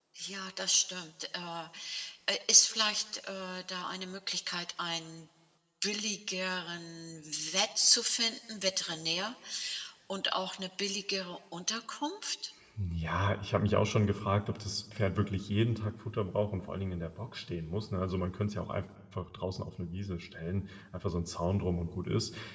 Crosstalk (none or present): none